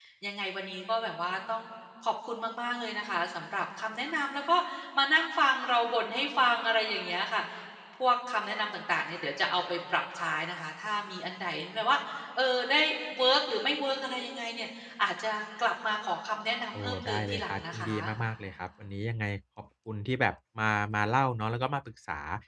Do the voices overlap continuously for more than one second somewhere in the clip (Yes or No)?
Yes